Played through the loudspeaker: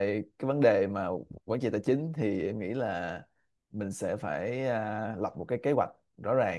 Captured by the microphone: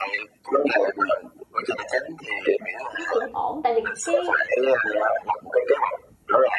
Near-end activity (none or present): present